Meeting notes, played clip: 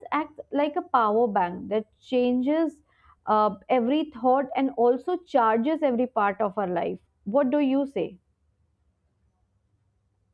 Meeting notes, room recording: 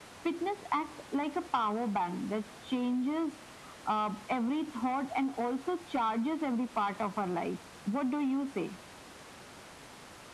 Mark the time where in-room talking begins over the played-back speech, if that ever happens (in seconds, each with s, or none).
none